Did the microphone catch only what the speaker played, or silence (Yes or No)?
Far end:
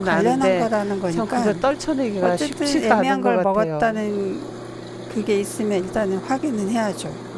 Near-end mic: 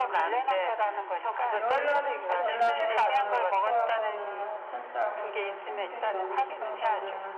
No